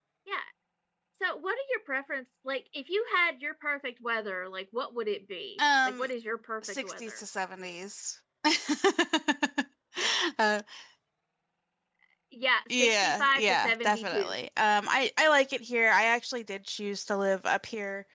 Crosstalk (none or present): present